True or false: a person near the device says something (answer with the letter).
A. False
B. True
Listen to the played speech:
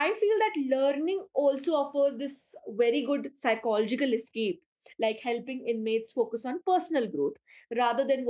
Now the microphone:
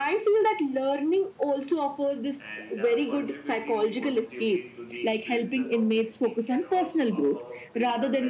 B